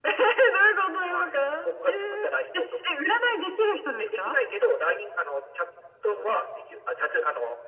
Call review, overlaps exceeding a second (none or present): none